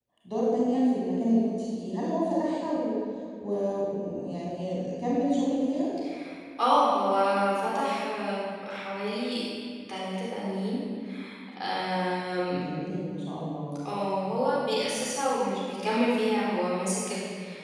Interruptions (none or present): none